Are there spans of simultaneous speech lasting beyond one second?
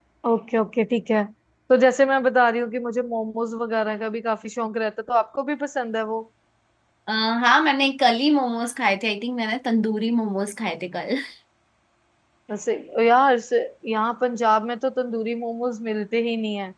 No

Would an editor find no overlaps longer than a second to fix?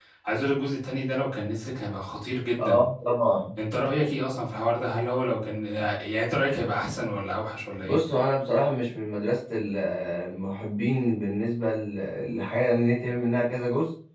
Yes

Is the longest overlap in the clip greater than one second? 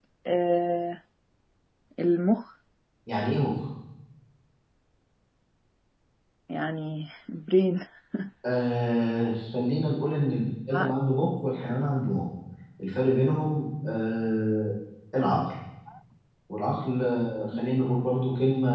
No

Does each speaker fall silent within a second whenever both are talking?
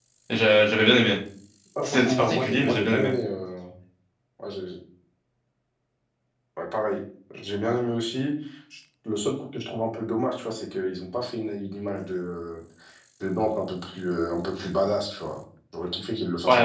No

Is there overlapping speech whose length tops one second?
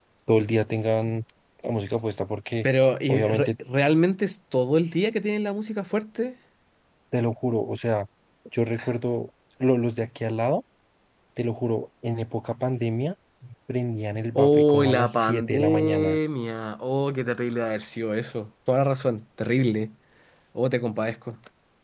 Yes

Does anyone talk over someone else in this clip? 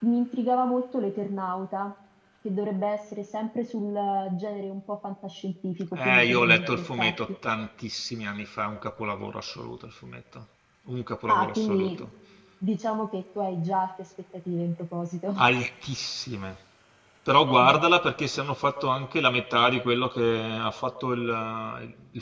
Yes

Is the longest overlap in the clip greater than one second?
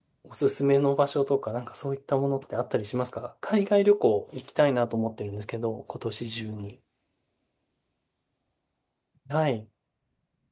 No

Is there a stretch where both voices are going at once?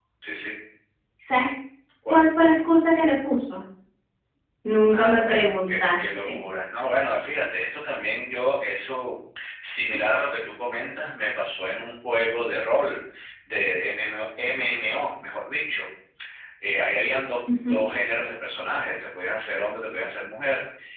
Yes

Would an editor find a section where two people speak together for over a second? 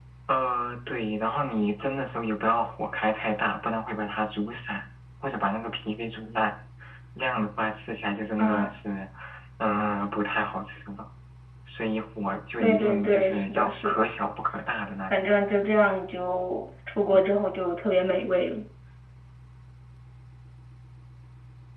Yes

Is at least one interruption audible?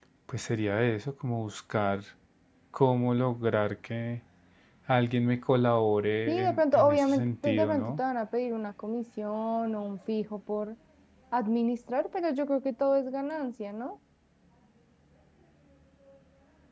Yes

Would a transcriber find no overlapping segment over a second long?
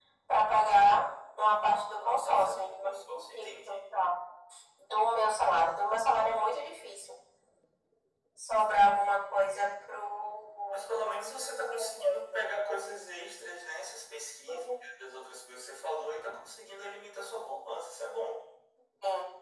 No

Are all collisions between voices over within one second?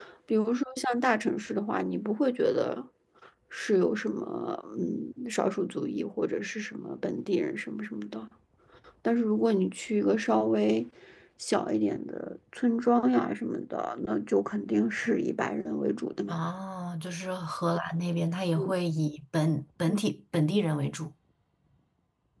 Yes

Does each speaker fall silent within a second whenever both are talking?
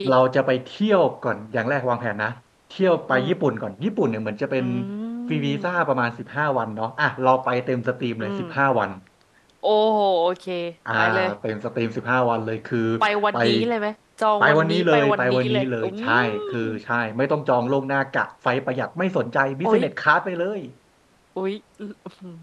No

